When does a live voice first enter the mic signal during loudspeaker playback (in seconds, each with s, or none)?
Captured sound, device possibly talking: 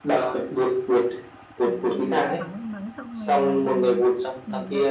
1.6 s